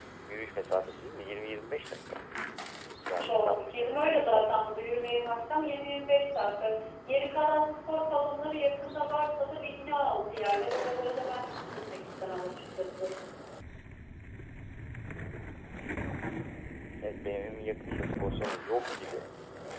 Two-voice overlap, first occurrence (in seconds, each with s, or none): 3.2 s